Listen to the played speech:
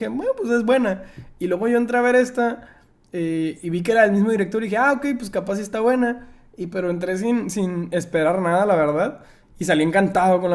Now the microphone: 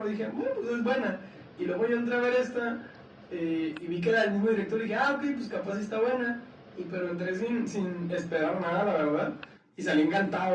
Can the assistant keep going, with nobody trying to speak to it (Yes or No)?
Yes